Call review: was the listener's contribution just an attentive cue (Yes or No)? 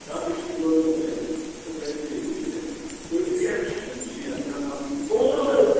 No